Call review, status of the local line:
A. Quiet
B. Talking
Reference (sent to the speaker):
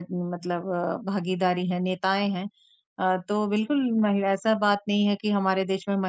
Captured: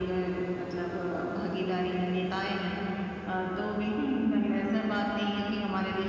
A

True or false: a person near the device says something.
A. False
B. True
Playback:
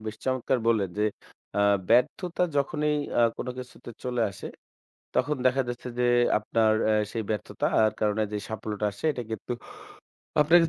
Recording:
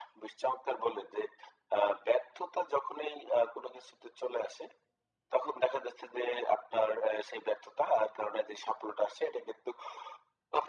A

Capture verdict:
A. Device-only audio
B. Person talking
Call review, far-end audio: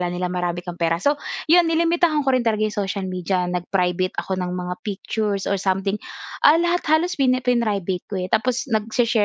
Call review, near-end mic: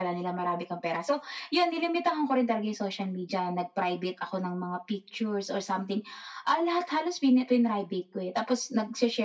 A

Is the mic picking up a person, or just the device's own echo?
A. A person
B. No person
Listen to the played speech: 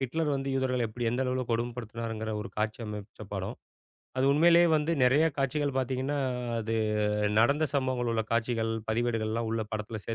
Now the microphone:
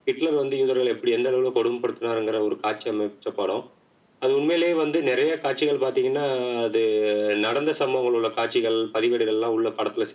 B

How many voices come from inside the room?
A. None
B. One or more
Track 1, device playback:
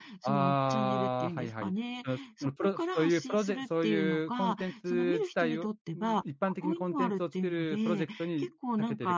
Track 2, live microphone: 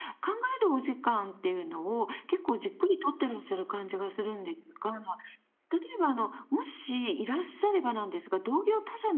B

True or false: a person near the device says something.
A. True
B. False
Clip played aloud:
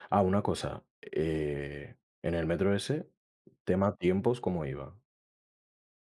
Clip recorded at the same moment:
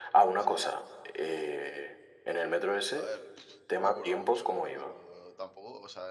A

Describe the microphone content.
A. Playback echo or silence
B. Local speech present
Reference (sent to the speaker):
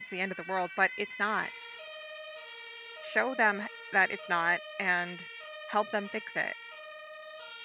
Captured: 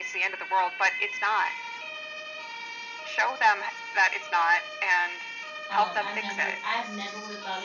B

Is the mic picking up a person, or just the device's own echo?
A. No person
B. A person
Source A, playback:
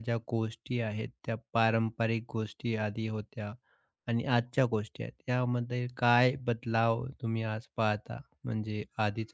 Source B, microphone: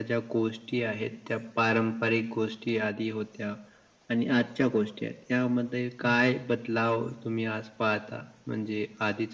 B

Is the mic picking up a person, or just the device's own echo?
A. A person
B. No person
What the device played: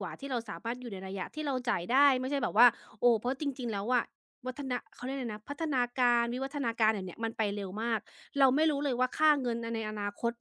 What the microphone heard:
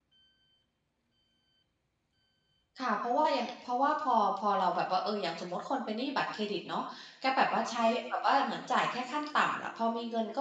A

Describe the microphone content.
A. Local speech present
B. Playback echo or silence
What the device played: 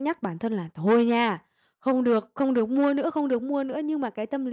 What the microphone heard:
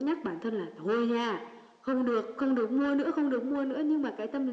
B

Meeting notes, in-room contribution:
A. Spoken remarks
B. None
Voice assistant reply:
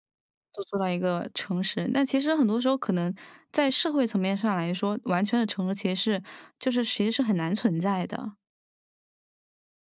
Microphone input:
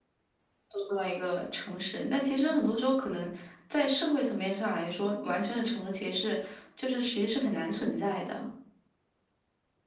A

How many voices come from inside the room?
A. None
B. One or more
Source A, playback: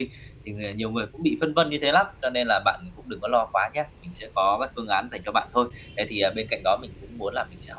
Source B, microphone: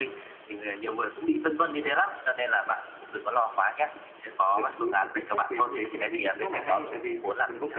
B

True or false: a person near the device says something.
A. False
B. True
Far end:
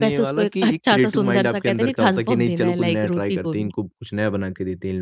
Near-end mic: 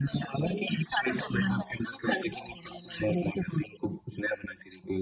A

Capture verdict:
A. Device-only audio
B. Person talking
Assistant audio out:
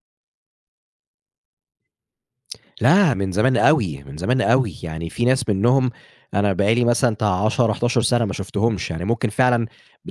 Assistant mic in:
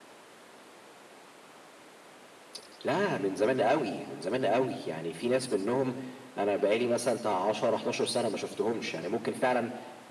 A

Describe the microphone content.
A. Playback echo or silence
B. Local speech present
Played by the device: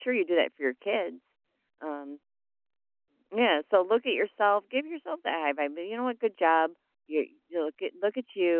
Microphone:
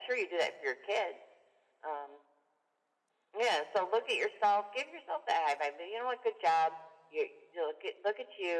A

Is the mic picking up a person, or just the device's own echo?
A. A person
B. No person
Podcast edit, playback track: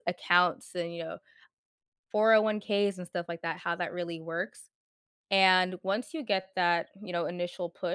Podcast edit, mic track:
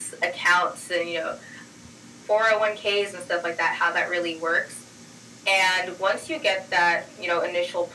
B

